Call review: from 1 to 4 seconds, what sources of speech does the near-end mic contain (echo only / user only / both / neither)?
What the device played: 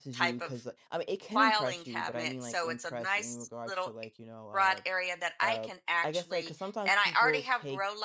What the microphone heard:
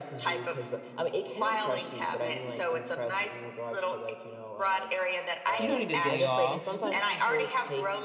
echo only